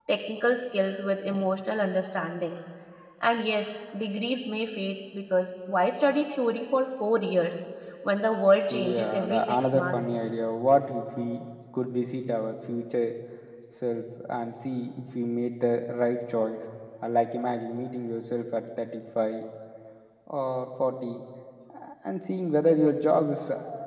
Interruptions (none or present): present